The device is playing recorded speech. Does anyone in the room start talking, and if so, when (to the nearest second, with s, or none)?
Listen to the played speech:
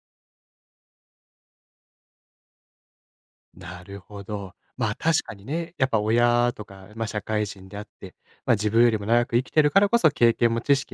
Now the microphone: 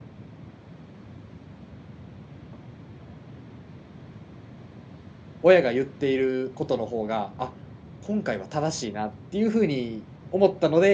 5 s